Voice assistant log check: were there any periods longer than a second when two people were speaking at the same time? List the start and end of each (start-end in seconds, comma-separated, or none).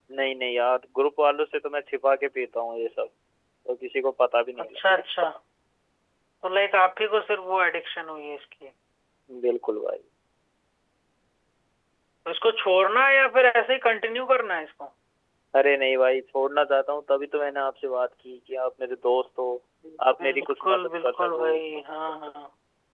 20.2-21.5